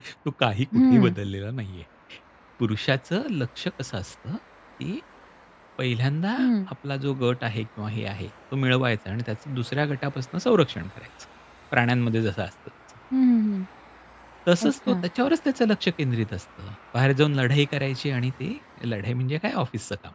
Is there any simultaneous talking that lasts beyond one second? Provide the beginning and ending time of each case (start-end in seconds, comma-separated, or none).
none